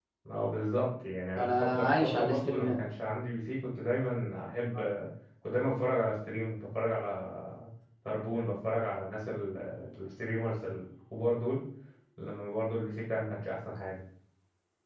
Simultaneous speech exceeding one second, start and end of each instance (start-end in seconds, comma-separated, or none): 1.4-2.8